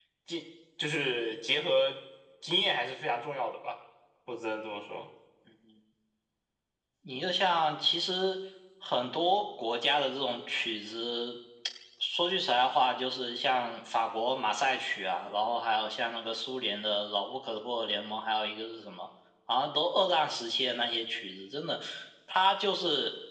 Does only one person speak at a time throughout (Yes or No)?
Yes